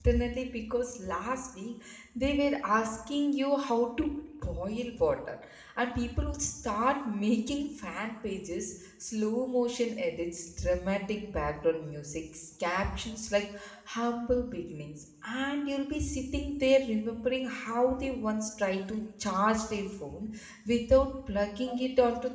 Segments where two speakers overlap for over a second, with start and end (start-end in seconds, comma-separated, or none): none